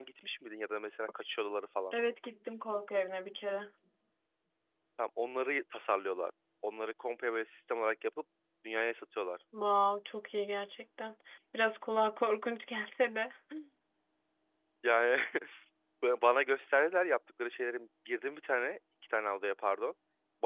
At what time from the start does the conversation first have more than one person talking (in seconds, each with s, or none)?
none